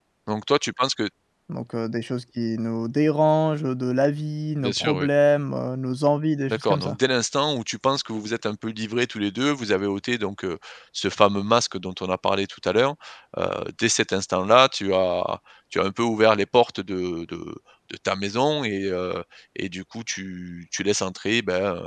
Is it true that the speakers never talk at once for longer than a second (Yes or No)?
Yes